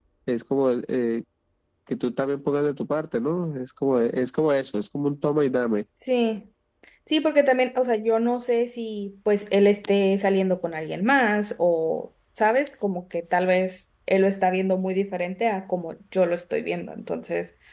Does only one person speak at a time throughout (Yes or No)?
Yes